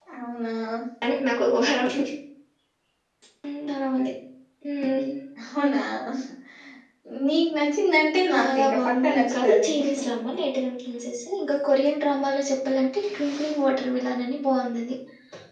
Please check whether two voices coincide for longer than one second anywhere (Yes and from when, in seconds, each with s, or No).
Yes, from 8.3 s